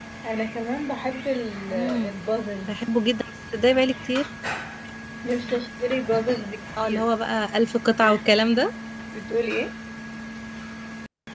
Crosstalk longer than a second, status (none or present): none